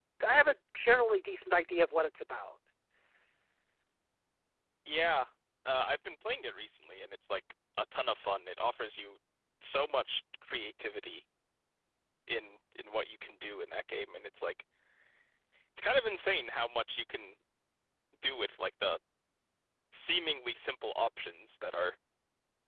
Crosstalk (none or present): none